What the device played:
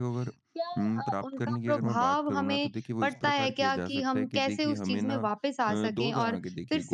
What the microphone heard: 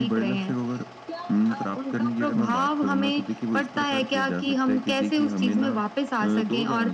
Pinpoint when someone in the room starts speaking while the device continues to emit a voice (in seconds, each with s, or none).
none